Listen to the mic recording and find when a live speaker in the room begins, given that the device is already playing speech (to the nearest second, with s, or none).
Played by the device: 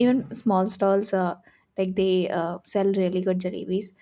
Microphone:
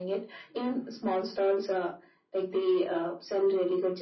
none